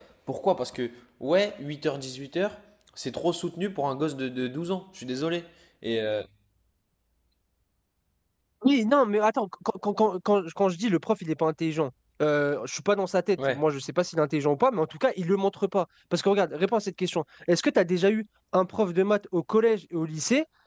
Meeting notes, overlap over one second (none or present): none